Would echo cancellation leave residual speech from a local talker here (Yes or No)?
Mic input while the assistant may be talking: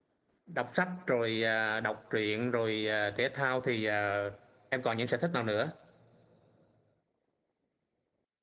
Yes